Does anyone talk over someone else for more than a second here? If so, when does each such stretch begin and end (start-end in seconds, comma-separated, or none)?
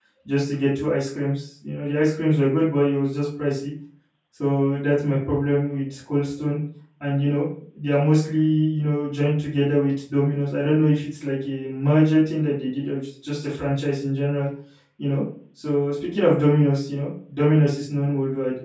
none